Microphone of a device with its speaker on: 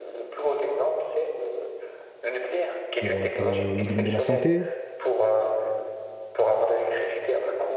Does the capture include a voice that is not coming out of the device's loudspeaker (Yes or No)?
Yes